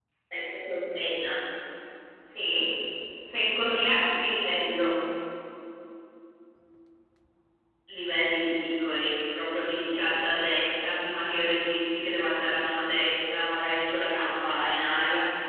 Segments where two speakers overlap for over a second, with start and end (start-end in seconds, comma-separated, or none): none